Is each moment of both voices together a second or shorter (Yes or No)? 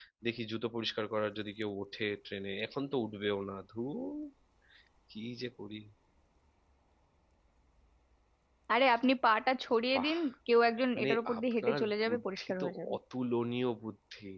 No